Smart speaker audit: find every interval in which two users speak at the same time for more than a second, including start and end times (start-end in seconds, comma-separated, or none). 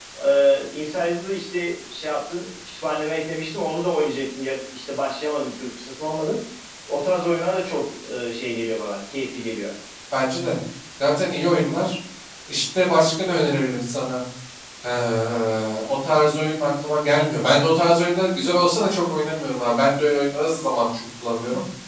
none